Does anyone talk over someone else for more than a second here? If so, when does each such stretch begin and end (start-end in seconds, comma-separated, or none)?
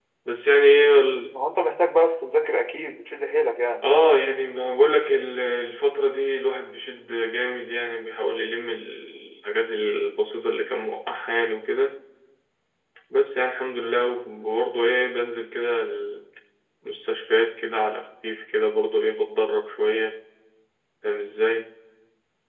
none